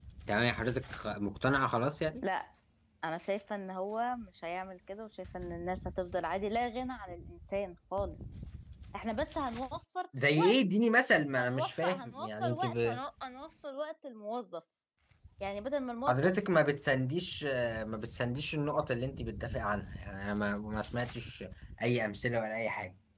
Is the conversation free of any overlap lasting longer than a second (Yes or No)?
No